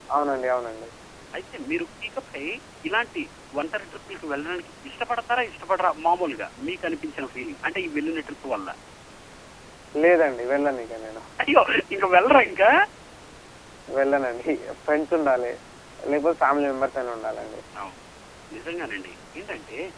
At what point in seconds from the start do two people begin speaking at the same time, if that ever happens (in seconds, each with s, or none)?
none